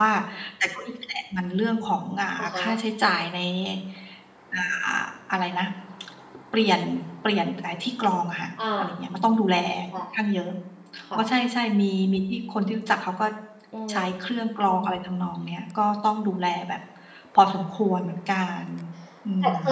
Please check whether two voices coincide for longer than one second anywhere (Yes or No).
No